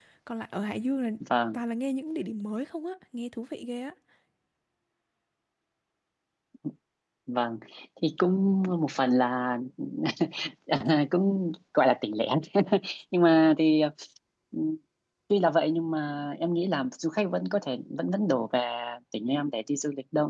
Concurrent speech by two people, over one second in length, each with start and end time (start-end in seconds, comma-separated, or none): none